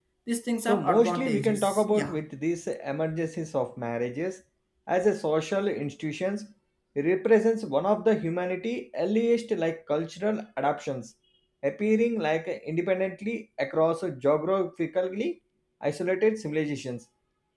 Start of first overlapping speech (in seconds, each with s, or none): 0.7 s